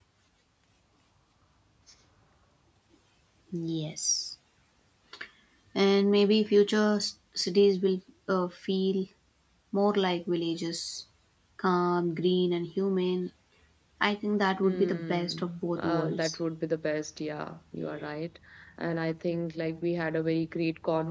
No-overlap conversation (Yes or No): No